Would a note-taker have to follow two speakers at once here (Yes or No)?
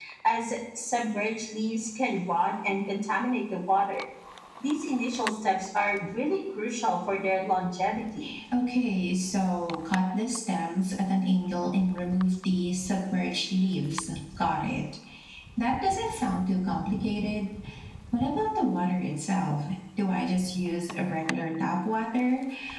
No